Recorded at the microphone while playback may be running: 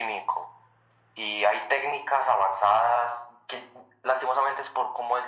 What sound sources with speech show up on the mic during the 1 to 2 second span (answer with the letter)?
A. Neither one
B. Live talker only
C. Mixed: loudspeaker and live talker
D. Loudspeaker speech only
D